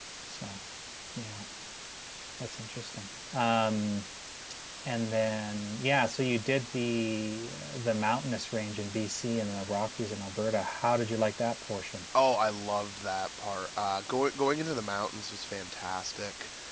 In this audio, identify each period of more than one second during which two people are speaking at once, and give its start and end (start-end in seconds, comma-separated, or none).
none